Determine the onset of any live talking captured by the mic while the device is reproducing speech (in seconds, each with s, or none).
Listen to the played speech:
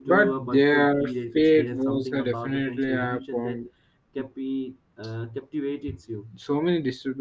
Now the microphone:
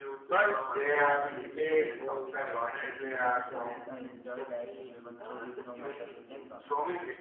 0.6 s